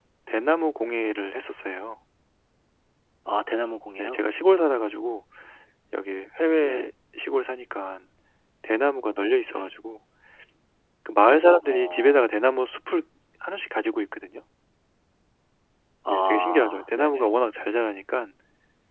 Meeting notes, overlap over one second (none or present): present